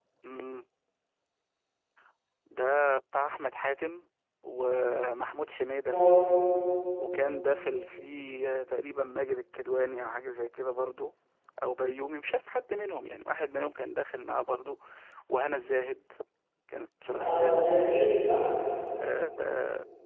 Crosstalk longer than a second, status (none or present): none